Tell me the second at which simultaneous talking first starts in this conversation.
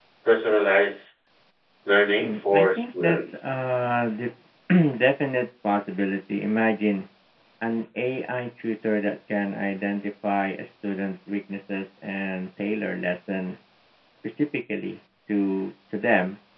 2.2 s

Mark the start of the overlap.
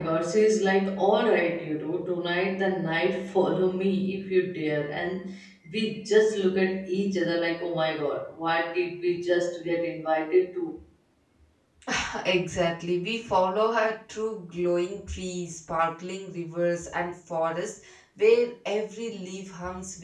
none

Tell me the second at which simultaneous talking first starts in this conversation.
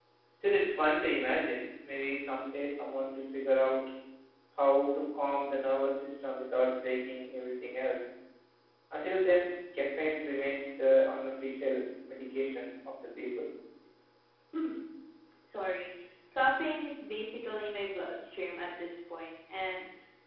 none

